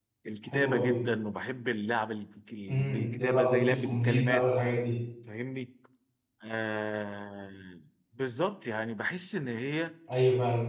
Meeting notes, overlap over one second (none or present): present